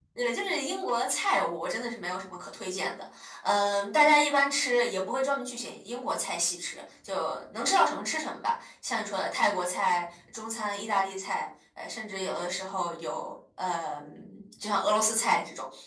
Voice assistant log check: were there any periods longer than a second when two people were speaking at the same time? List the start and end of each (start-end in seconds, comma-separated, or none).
none